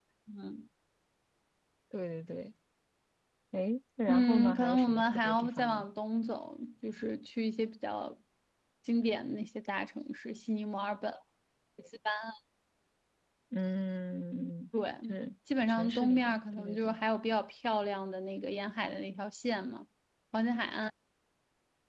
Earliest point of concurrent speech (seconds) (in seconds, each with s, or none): 4.1 s